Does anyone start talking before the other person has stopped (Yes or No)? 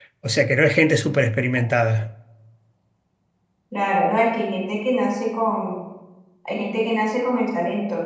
No